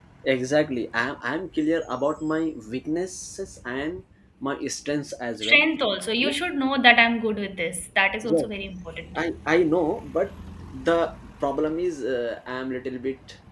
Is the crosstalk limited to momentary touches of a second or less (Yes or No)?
Yes